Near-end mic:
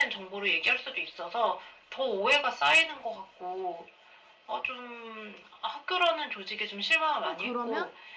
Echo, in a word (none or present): present